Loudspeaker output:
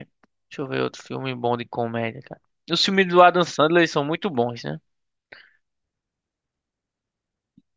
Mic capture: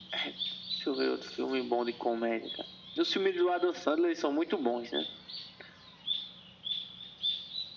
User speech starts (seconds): none

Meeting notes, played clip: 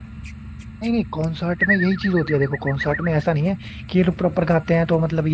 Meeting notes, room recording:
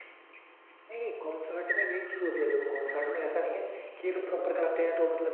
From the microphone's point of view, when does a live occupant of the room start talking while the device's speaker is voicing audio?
none

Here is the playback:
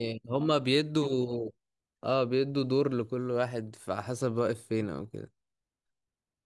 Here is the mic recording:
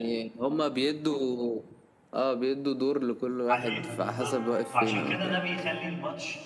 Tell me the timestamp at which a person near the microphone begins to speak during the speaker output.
3.5 s

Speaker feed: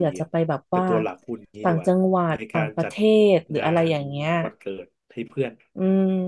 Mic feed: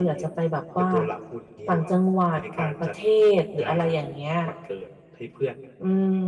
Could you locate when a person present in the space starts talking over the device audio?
none

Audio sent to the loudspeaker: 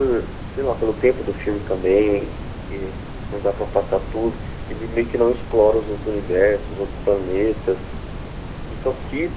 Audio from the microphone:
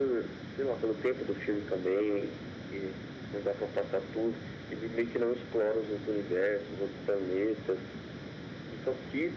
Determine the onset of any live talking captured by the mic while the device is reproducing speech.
none

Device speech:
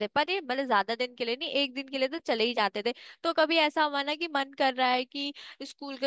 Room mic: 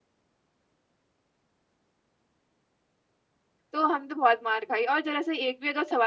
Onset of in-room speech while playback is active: 3.7 s

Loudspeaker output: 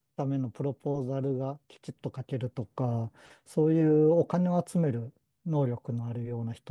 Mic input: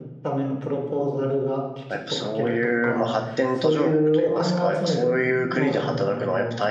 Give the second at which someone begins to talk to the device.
1.9 s

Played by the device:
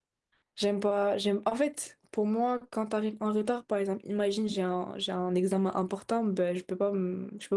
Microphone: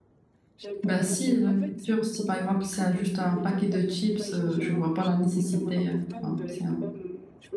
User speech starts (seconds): 0.8 s

